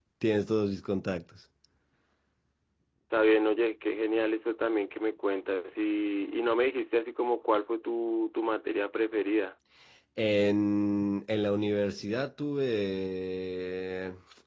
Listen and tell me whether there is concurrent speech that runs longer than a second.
No

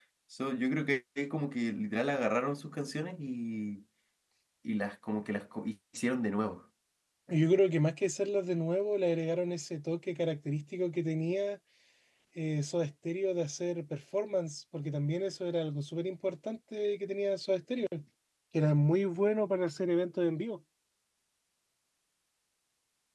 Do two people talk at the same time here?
No

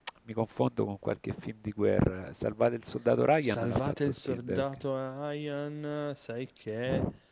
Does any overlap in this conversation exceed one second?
Yes, from 3.4 s

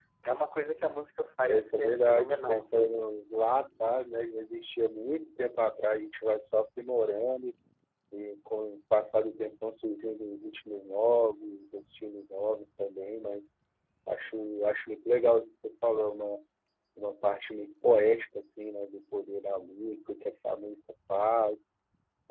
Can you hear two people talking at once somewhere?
Yes, from 1.5 s

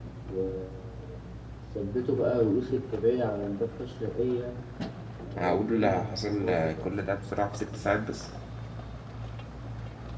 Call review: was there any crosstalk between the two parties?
Yes, from 5.4 s

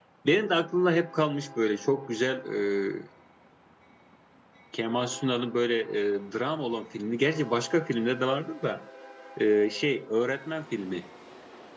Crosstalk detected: No

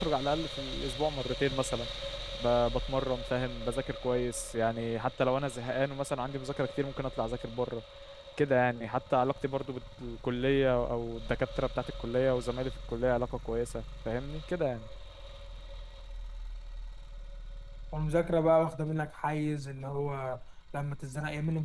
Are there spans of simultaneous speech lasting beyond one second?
No

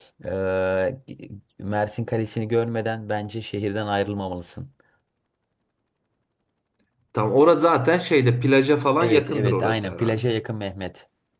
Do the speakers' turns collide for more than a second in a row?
Yes, from 9.0 s

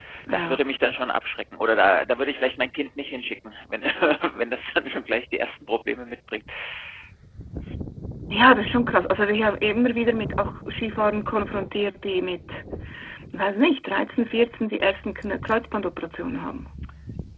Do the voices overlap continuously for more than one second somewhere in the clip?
No

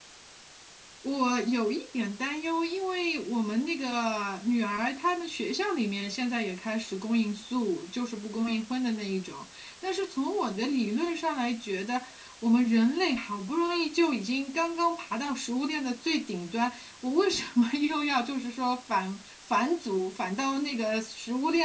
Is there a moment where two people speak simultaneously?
No

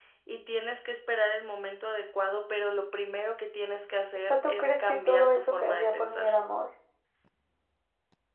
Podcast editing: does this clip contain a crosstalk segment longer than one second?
Yes, from 4.3 s

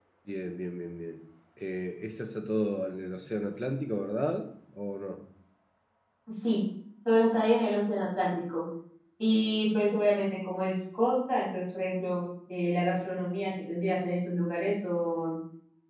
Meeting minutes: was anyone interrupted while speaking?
No

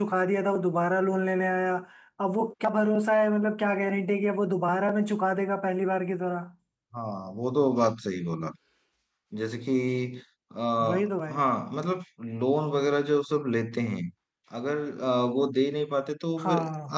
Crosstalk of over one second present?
No

